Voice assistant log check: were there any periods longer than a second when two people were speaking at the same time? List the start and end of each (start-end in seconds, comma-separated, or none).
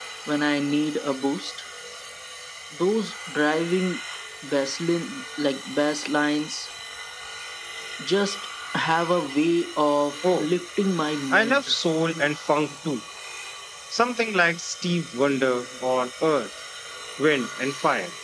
none